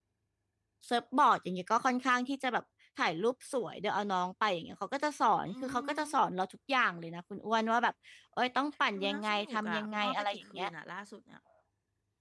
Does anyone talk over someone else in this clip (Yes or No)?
Yes